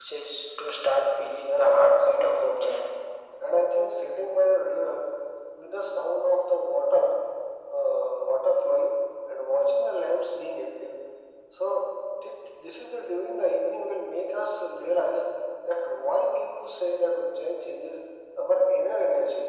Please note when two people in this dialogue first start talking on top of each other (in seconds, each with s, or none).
1.4 s